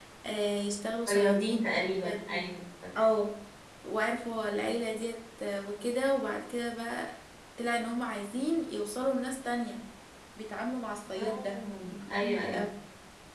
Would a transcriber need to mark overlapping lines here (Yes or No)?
Yes